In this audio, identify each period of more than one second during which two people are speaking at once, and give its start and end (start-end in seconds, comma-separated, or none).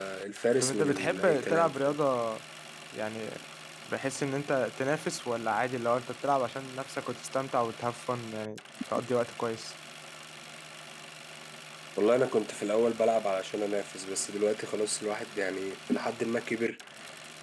0.6-2.0